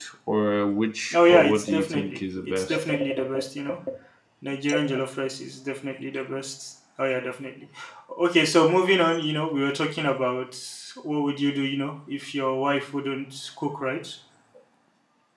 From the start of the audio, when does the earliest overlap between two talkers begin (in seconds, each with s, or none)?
1.1 s